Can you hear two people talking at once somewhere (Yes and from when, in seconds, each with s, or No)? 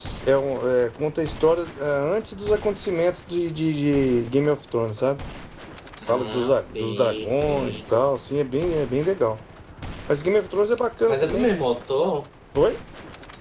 Yes, from 6.1 s